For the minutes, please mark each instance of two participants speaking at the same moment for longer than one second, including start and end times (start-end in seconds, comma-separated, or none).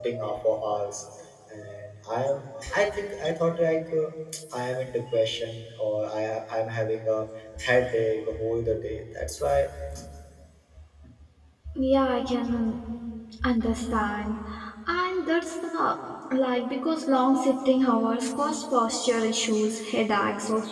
none